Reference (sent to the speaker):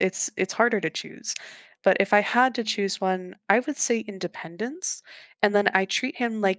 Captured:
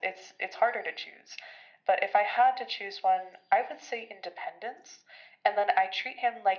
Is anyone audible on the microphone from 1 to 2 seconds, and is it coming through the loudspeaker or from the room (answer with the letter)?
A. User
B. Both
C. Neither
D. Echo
D